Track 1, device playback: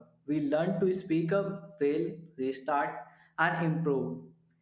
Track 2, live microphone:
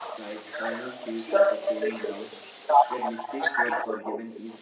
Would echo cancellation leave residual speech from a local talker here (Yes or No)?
Yes